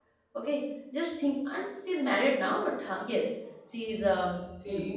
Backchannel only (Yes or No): No